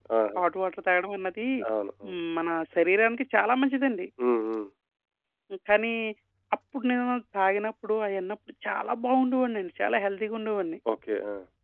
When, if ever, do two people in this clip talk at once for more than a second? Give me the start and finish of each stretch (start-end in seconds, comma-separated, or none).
none